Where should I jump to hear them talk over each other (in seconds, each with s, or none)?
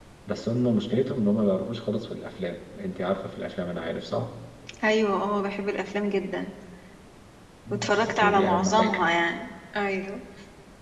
7.7 s